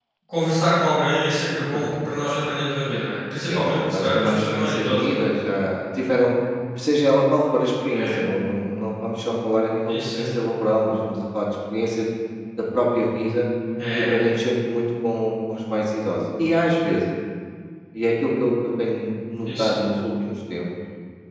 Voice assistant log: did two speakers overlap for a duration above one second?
Yes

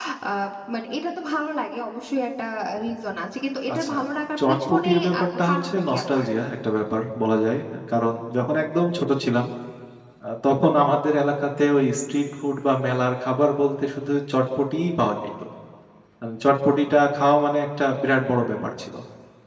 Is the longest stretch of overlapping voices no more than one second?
No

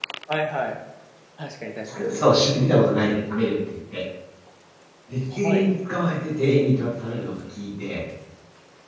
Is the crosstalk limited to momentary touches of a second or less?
Yes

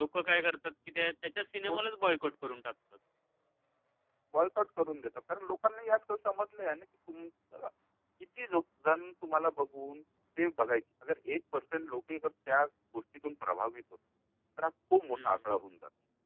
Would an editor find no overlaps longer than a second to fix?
Yes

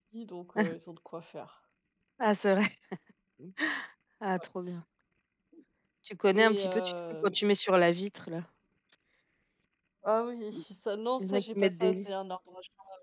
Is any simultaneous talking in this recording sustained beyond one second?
Yes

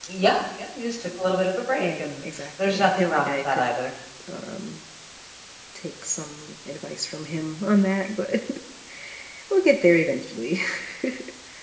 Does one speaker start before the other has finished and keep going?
Yes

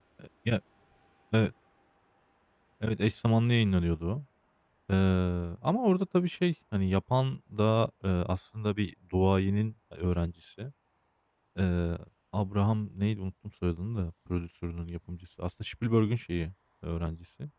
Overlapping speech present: No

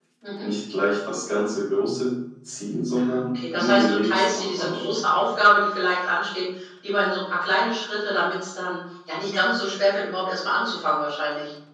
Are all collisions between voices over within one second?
No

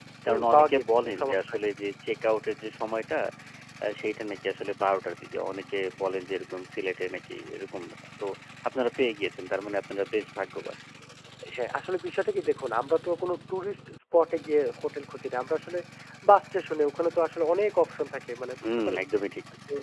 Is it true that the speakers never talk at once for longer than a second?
No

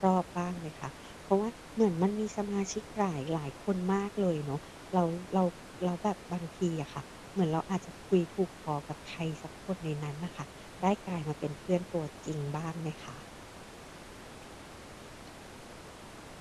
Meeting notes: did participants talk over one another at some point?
No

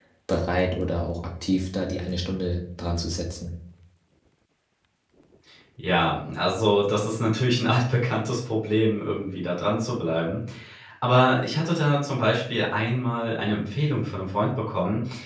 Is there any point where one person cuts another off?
No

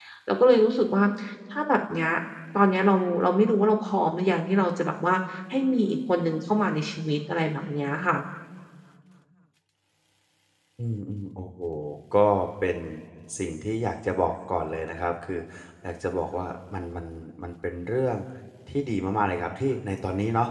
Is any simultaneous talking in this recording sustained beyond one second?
No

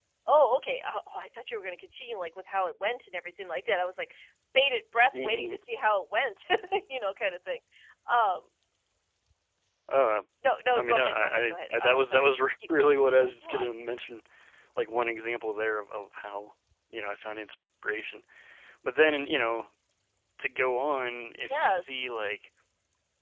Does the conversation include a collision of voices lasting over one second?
Yes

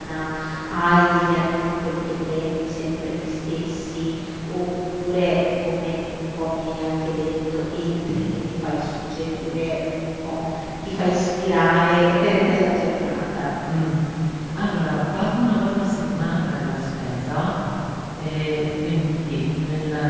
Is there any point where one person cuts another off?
No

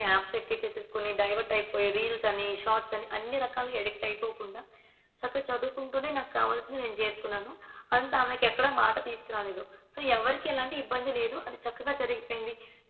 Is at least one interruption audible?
No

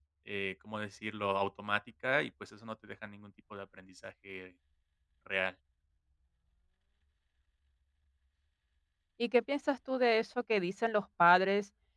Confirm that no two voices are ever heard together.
Yes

